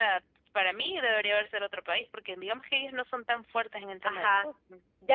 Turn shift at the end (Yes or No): Yes